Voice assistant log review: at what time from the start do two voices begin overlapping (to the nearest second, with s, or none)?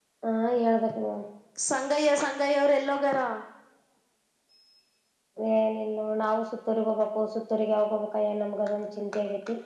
none